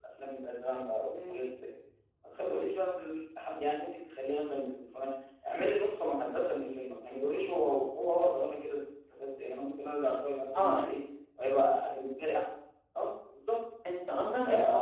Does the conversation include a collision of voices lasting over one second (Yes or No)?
No